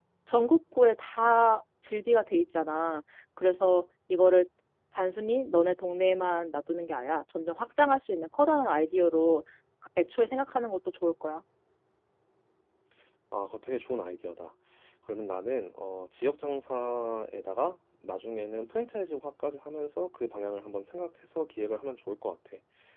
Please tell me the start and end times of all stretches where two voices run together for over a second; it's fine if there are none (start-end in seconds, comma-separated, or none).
none